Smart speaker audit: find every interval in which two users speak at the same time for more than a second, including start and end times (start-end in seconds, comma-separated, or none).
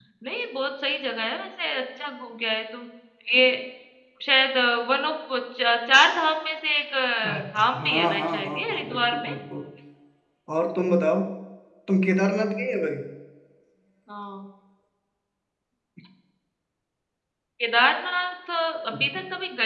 7.8-9.3